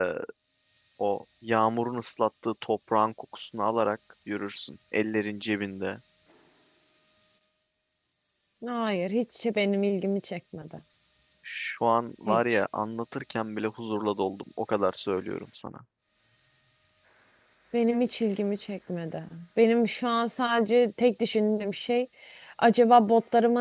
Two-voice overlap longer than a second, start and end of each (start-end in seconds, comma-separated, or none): none